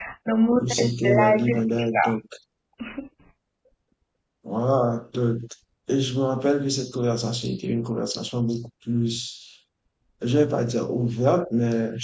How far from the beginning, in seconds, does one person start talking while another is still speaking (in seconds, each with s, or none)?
0.6 s